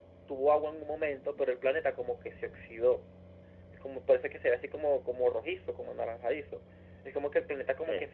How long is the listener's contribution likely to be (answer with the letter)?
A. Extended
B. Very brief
B